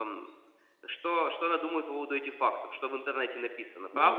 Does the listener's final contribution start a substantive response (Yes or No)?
Yes